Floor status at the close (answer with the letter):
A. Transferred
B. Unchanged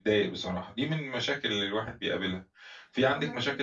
B